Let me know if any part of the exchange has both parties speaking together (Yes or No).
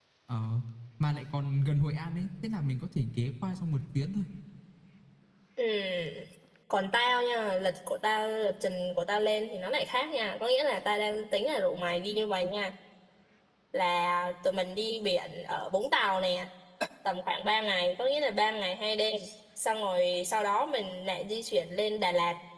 No